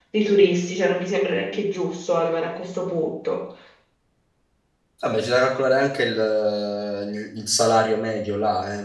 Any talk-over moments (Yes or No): No